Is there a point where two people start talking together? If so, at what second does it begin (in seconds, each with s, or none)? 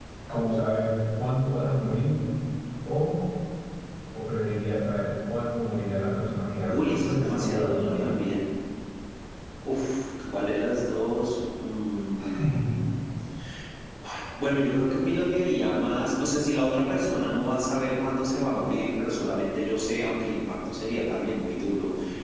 6.7 s